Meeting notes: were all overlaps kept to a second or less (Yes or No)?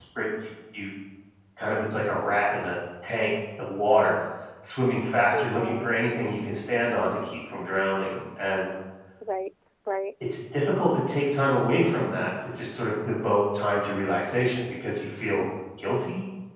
Yes